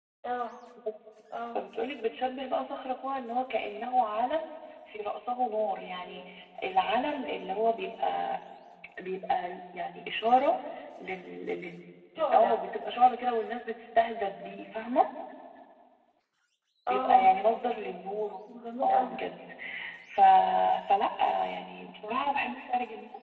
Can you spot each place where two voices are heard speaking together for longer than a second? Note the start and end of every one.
none

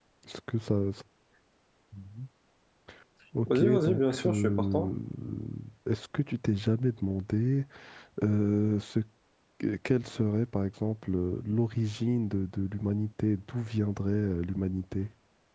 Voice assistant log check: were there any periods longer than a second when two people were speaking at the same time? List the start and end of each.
3.5-4.9

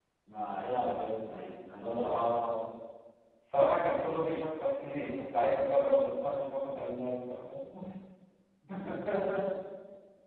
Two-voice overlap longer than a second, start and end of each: none

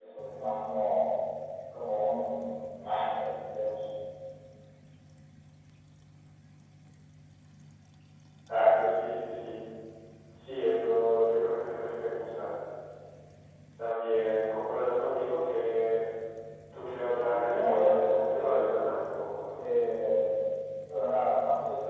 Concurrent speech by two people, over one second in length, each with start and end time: 17.1-18.8

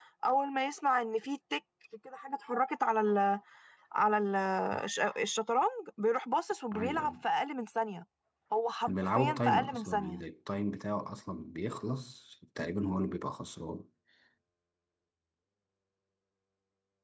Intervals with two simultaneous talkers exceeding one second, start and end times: 8.9-10.2

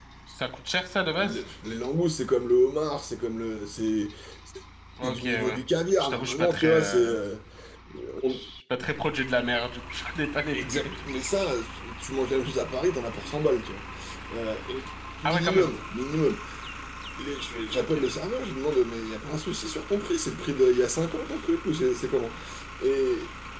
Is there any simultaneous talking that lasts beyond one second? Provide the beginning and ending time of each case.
6.0-7.2

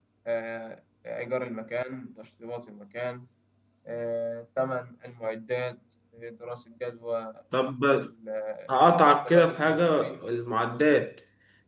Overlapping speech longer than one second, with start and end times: 8.7-10.2

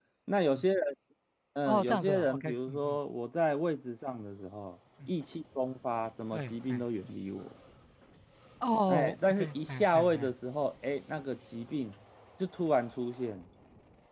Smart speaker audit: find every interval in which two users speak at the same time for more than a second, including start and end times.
1.7-3.0, 8.9-10.3

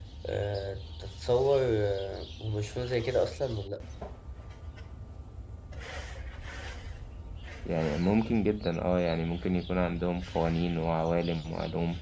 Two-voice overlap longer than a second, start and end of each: none

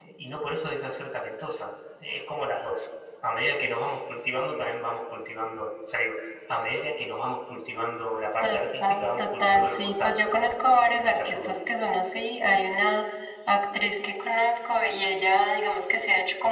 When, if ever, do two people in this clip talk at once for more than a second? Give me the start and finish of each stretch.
8.4-11.5

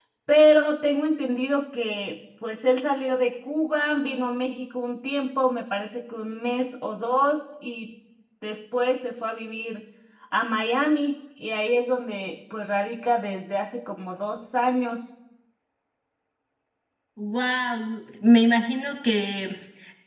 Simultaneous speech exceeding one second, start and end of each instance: none

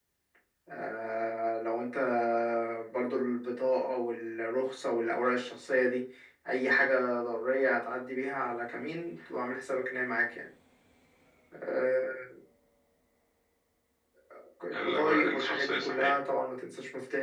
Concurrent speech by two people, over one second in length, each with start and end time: 14.7-16.2

